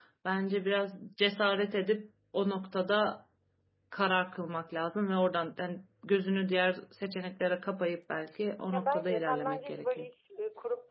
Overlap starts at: 8.7 s

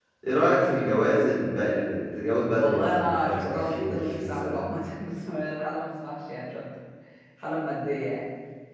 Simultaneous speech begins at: 2.6 s

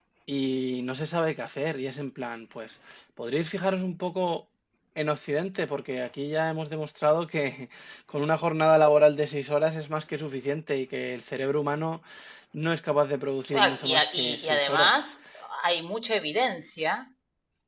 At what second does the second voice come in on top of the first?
13.4 s

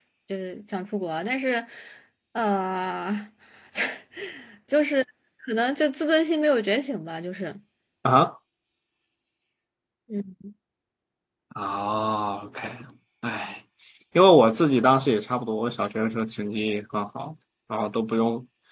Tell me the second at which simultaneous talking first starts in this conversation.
none

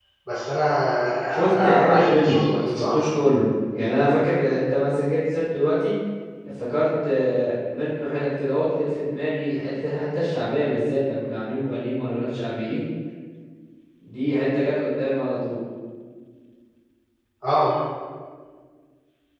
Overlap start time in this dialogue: 1.5 s

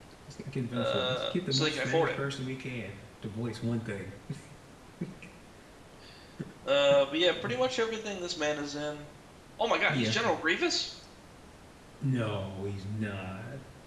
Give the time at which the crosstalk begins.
0.7 s

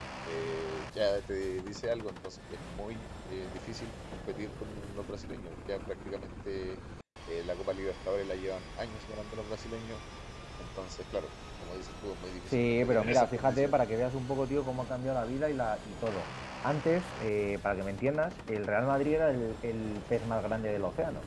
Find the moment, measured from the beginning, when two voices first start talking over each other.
12.5 s

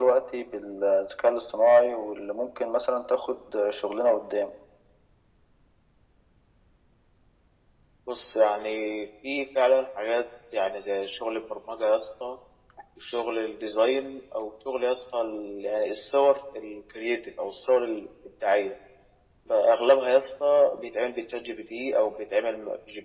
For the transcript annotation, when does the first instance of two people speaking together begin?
none

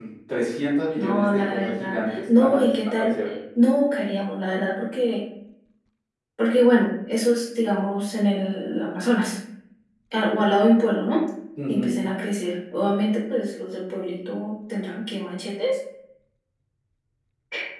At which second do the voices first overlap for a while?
0.9 s

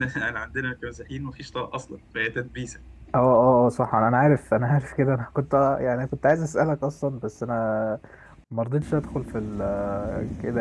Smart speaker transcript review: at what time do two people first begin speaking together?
none

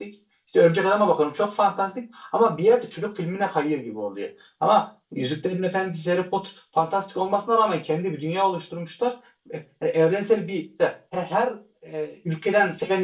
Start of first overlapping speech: none

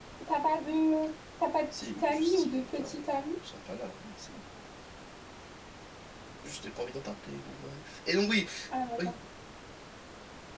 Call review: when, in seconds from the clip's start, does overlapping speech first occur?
1.7 s

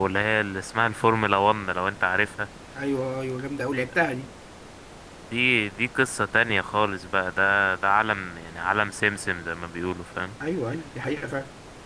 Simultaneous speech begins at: none

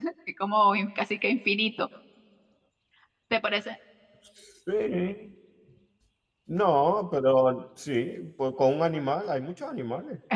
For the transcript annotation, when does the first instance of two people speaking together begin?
none

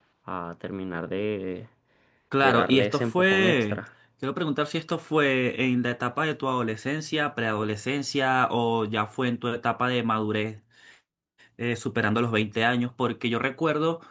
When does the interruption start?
2.4 s

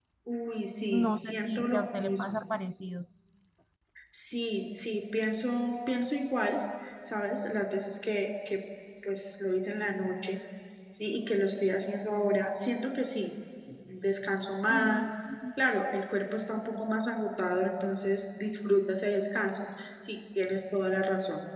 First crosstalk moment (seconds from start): 0.9 s

